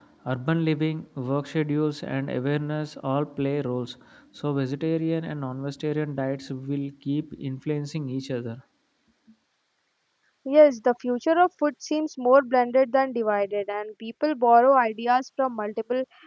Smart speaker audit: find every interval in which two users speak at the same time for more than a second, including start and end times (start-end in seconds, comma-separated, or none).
none